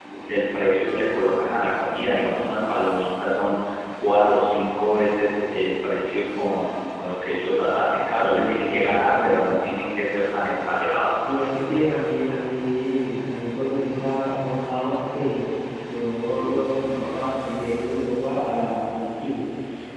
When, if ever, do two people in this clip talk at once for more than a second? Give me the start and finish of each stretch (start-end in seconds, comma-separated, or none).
8.2-9.7